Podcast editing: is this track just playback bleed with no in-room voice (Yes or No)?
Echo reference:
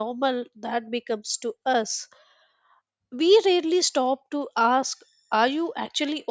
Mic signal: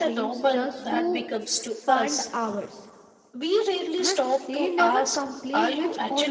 No